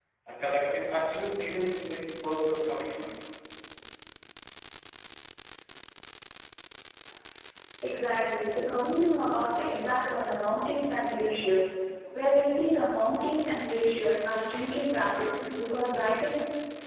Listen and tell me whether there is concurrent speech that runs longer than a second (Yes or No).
No